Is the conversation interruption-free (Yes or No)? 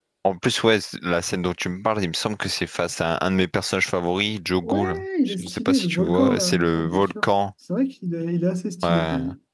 No